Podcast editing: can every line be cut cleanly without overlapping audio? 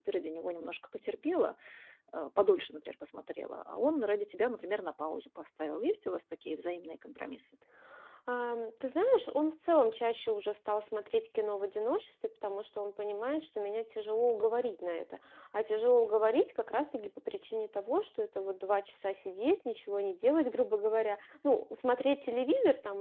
Yes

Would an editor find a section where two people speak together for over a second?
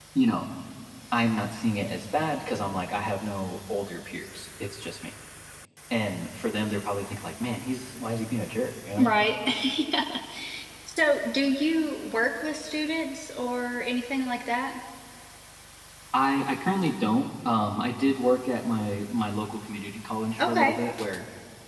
No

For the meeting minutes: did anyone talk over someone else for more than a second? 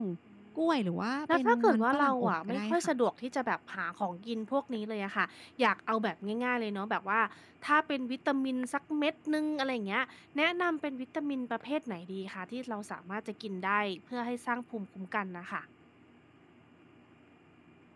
Yes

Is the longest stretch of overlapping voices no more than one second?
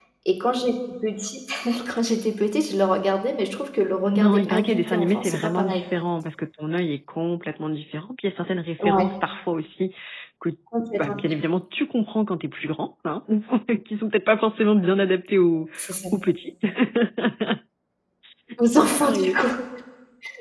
No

